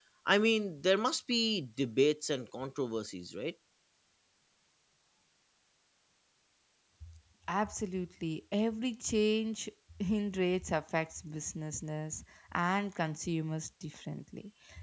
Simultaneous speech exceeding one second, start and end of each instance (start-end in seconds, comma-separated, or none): none